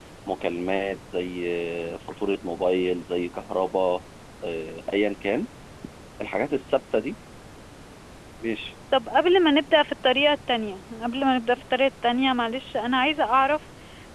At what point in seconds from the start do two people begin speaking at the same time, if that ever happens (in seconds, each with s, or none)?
none